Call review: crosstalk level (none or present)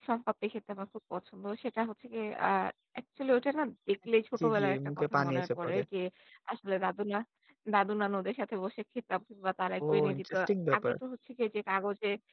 present